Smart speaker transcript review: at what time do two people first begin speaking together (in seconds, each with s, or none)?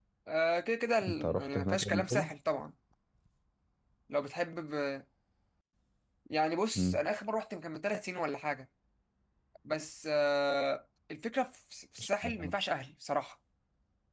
1.1 s